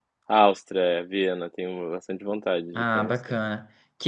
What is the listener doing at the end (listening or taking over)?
taking over